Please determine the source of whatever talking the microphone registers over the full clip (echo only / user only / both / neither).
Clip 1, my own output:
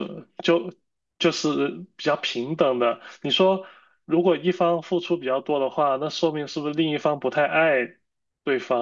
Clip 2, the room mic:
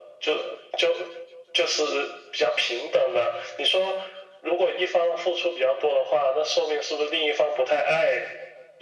echo only